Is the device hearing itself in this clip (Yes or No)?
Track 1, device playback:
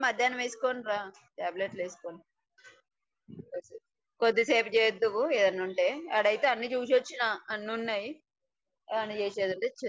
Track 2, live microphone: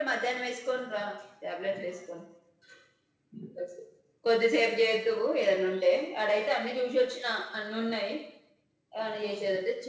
Yes